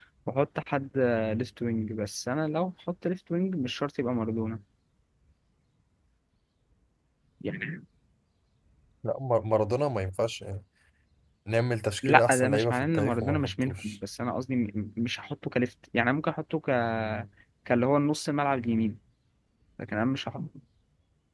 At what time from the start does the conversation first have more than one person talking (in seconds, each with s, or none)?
12.1 s